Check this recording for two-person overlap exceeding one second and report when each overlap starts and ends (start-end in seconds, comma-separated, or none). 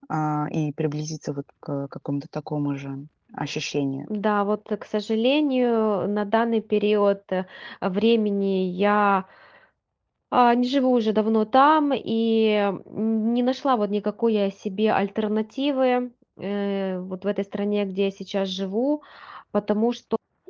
none